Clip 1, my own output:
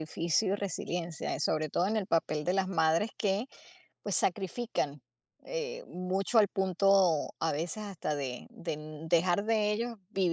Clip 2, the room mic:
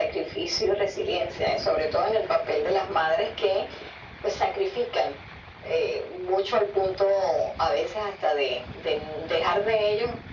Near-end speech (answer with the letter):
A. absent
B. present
A